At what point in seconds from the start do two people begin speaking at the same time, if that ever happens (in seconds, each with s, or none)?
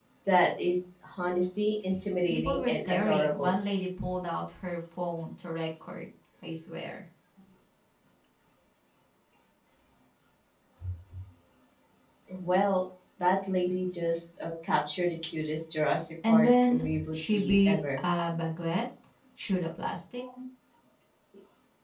2.3 s